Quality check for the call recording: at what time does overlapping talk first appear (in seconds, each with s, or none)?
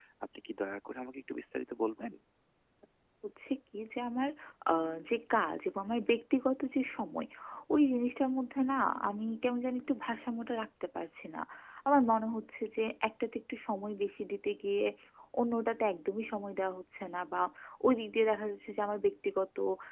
none